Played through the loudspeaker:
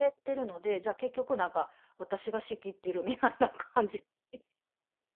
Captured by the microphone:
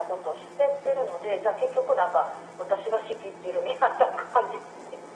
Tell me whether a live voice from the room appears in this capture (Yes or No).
No